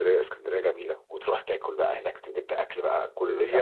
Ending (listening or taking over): taking over